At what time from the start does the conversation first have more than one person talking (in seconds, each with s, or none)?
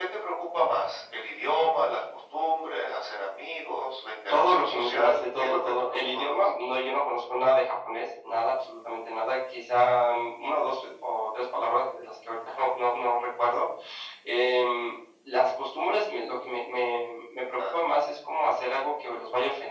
4.3 s